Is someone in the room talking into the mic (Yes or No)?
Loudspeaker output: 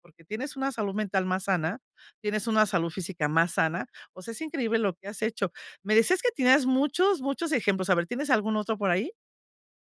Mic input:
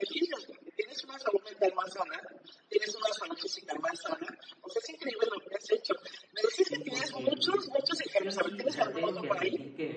Yes